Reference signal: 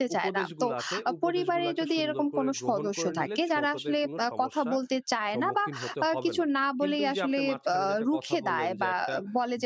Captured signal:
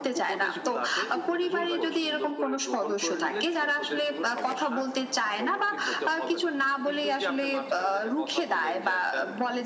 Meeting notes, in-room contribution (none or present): present